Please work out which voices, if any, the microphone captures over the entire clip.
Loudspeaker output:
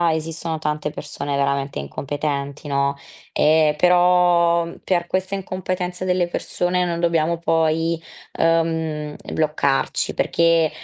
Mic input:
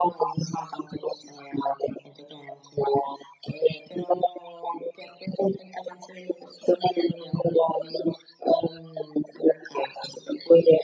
echo only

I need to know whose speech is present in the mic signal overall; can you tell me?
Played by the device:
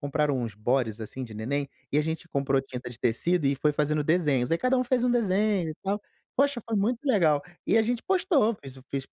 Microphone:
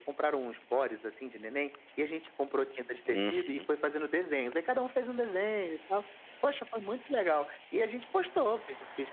both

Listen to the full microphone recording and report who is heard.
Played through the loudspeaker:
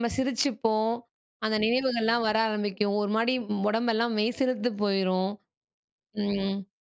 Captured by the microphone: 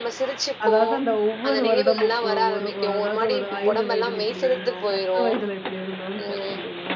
both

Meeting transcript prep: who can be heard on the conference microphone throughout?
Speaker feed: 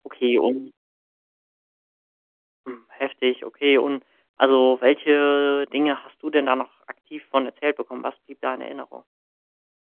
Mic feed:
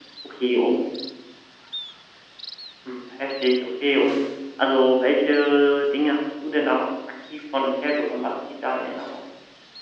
echo only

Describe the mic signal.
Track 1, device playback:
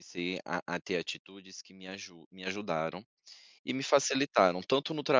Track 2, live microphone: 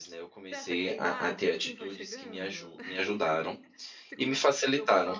both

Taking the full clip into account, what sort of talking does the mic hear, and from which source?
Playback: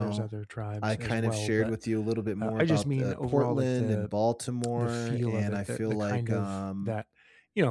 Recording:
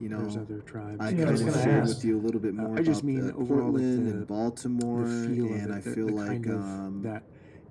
both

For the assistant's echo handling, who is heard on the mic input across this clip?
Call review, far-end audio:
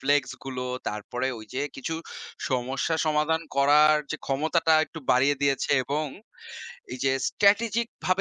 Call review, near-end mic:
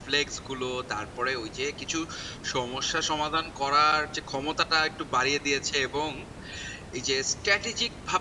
echo only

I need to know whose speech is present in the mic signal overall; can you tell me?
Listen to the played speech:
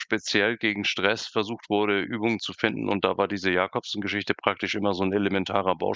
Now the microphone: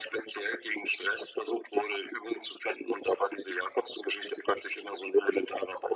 echo only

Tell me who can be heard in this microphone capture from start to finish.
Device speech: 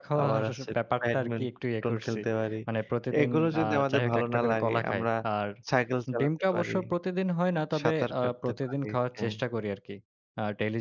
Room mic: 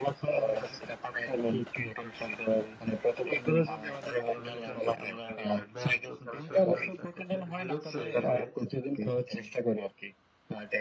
both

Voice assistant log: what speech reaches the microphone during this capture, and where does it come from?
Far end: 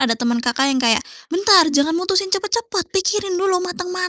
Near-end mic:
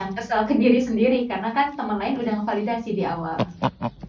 user only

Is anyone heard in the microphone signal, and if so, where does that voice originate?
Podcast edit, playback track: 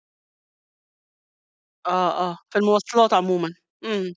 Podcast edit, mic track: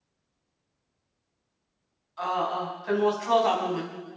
echo only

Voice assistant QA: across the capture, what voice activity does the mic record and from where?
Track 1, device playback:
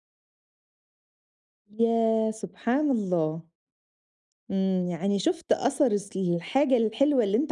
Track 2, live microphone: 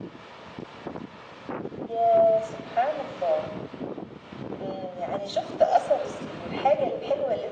echo only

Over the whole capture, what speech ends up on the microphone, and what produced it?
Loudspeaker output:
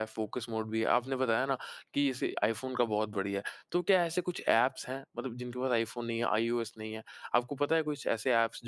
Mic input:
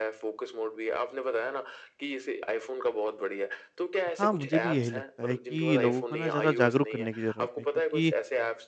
both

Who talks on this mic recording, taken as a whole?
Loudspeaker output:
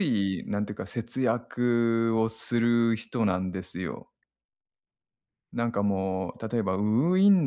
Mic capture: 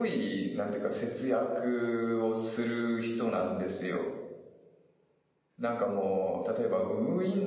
echo only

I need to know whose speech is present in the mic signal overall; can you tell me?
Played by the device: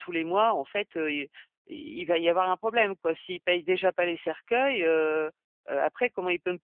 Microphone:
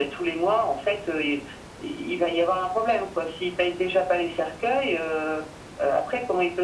echo only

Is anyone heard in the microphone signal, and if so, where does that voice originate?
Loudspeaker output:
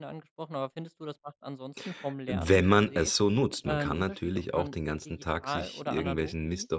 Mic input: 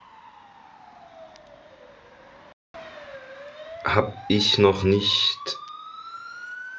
user only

